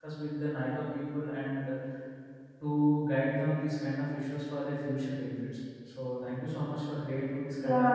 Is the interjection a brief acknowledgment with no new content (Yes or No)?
No